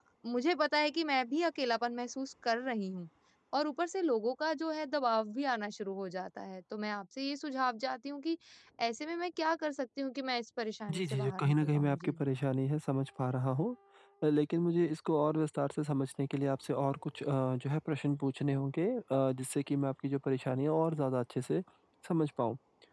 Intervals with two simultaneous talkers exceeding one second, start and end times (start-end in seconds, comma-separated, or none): 10.9-12.2